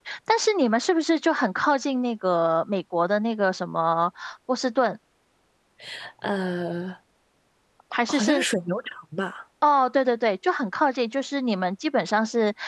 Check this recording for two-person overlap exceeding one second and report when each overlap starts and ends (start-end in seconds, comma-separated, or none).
none